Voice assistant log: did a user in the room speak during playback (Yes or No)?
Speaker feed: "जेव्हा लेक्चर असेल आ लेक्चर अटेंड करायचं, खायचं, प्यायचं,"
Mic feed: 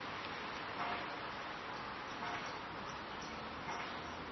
No